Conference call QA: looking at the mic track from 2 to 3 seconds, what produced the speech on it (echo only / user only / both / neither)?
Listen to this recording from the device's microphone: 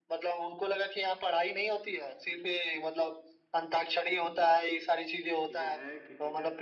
echo only